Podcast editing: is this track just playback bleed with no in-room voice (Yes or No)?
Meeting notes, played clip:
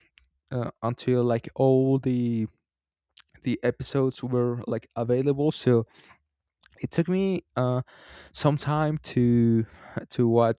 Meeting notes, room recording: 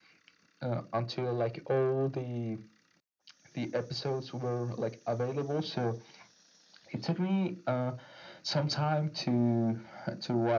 Yes